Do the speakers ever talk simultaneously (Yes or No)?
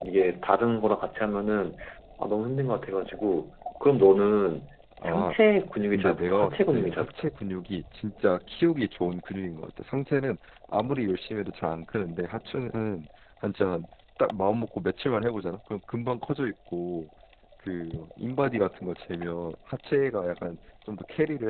Yes